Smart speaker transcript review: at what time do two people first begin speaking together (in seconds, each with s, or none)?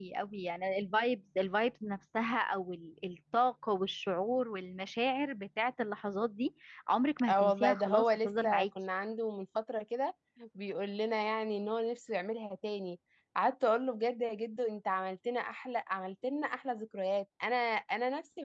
7.3 s